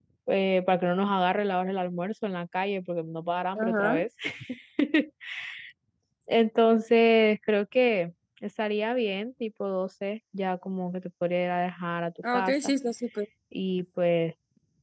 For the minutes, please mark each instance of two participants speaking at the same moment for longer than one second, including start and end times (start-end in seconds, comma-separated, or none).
none